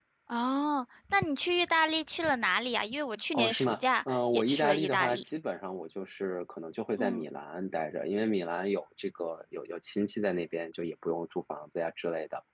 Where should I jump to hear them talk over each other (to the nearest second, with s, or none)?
3 s